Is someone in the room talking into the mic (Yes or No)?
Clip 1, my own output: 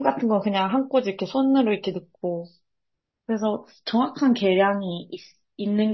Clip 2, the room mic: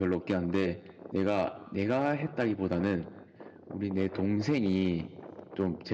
Yes